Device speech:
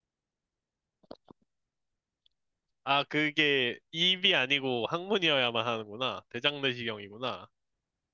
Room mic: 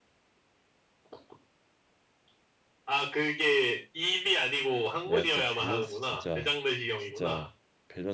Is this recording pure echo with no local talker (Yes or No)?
No